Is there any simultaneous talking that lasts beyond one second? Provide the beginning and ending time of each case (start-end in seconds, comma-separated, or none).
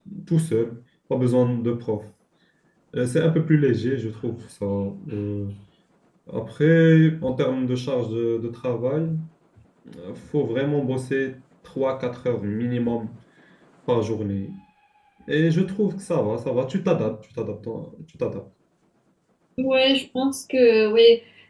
none